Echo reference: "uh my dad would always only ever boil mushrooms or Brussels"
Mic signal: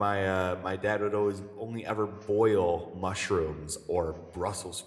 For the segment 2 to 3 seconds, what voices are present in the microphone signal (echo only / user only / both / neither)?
echo only